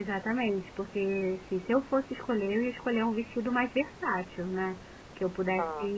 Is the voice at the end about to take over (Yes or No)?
No